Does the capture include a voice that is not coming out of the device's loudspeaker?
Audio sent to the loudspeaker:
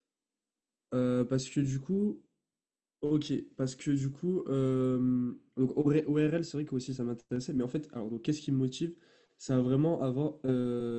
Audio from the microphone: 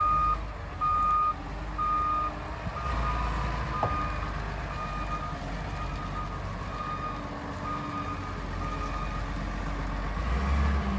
No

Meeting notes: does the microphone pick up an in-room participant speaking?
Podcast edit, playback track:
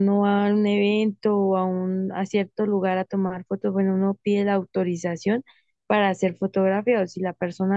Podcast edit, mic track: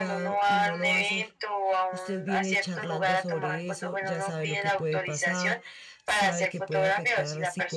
Yes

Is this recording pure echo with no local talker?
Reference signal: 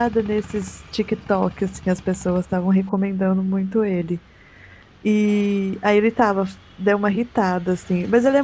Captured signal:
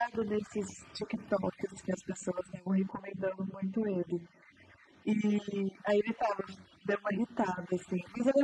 Yes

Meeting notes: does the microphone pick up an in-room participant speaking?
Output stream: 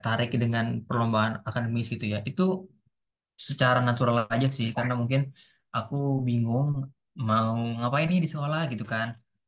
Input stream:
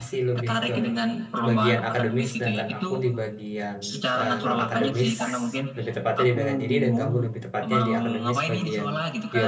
Yes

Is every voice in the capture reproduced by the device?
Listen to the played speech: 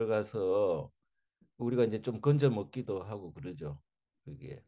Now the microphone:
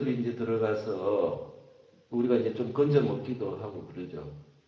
Yes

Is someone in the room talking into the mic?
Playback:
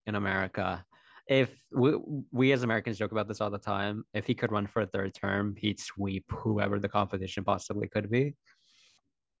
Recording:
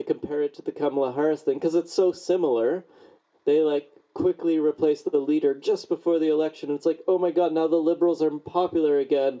Yes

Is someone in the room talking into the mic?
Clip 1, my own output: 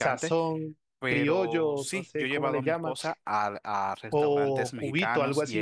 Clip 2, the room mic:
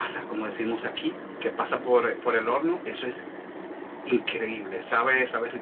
Yes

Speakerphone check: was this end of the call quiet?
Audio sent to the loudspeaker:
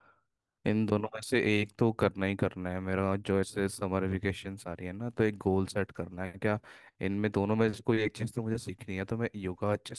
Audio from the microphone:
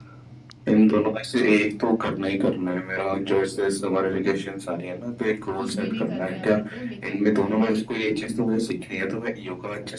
No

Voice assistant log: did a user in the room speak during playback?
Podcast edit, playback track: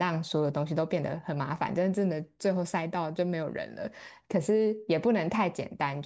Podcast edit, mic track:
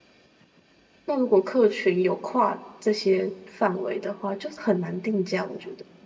Yes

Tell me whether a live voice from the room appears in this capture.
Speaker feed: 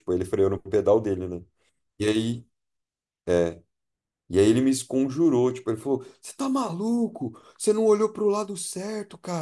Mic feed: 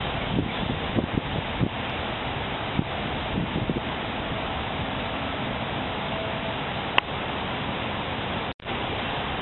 No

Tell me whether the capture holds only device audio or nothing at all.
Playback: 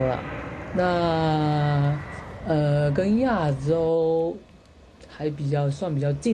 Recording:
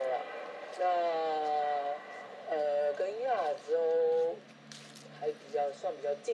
Yes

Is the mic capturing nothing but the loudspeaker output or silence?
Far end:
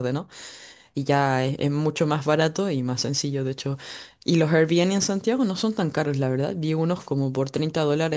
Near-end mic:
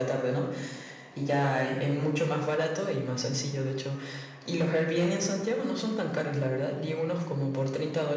Yes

